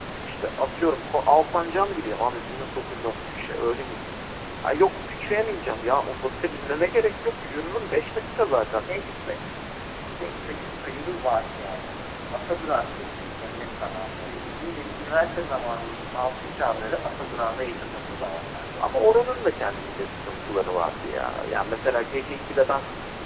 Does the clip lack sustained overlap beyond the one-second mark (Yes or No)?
Yes